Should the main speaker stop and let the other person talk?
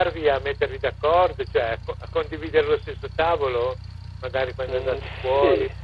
Yes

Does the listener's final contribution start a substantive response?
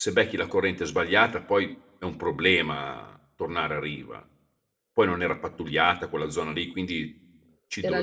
No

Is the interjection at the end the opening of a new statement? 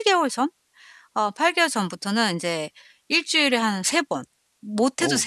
No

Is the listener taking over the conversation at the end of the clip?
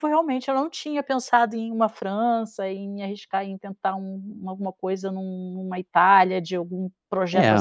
Yes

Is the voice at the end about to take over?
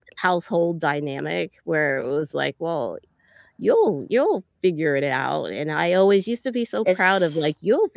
No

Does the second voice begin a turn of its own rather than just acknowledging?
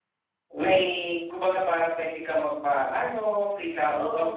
No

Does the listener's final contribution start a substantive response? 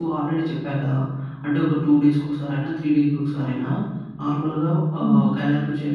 No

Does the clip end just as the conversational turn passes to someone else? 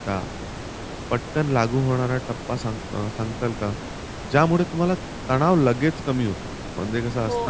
Yes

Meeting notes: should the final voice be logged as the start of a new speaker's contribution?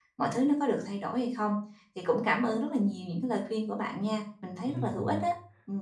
Yes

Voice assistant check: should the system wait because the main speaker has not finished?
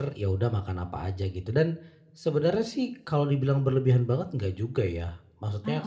Yes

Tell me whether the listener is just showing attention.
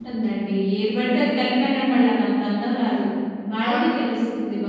Yes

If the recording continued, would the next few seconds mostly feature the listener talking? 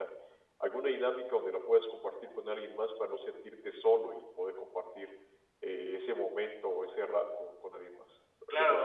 Yes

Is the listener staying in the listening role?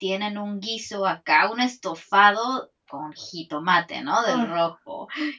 Yes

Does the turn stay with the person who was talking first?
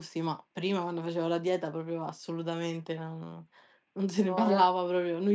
Yes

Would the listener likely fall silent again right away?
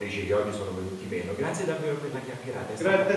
No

